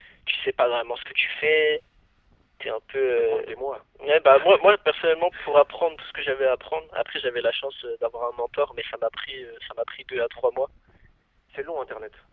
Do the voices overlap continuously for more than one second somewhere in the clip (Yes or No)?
No